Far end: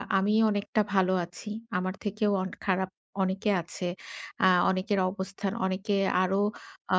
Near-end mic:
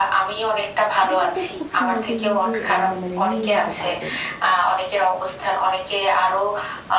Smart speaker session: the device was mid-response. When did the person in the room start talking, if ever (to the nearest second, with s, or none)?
1 s